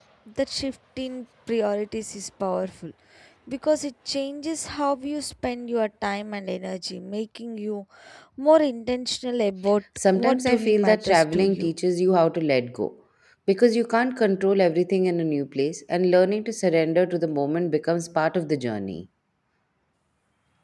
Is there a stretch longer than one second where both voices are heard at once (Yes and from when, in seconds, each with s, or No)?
Yes, from 10.0 s